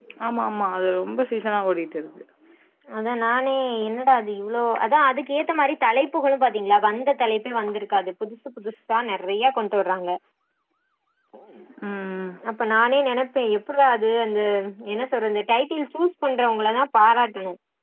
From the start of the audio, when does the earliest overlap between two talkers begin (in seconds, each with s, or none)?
none